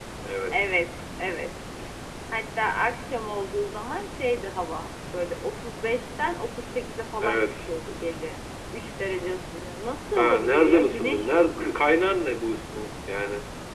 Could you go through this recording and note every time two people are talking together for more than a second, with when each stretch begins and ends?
10.2-11.6

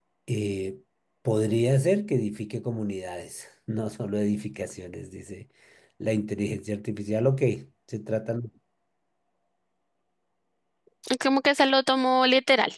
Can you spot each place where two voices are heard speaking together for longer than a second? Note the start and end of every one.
none

